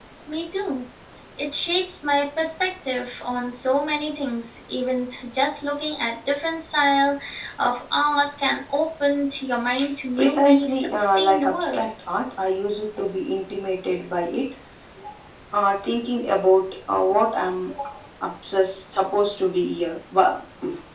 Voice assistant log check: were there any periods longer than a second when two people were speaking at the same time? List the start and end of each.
10.2-11.9

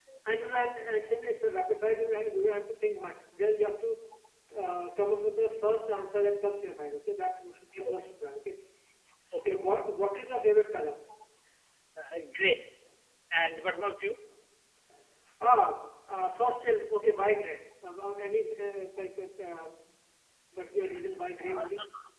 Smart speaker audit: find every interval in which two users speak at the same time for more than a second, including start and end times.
none

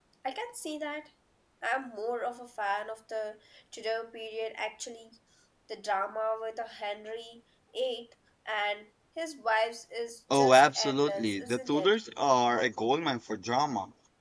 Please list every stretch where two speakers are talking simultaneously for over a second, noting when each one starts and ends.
10.3-12.0

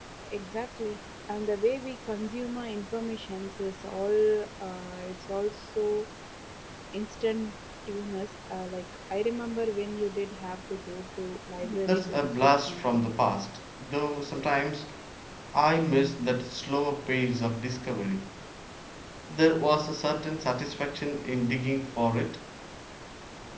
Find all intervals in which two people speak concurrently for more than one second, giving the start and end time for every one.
11.6-13.1

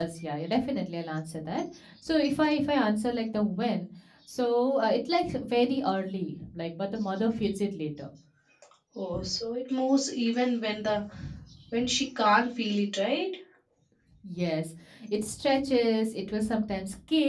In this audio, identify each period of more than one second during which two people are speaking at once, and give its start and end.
none

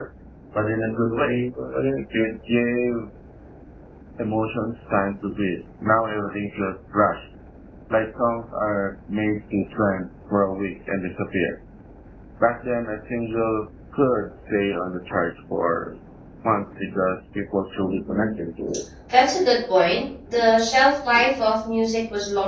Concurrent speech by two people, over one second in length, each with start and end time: none

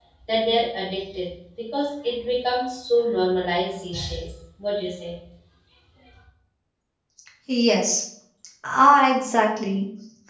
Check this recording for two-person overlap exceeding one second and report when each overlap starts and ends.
none

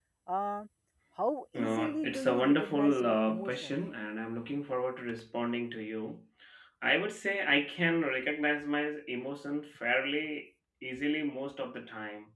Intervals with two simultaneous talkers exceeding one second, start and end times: 1.5-3.7

